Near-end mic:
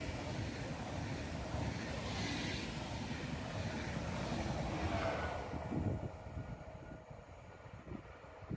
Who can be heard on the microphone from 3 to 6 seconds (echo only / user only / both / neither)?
neither